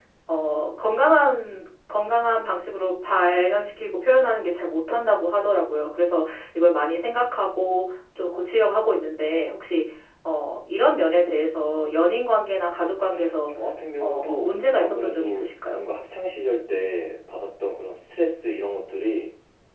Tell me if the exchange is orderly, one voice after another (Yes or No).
No